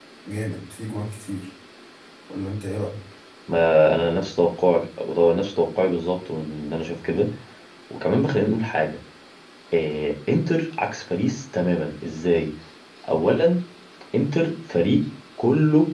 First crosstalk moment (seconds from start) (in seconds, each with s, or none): none